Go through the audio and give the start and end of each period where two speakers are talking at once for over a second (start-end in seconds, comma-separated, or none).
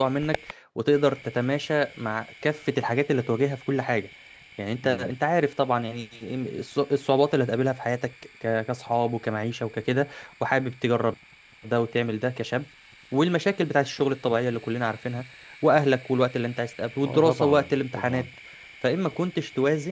17.1-18.3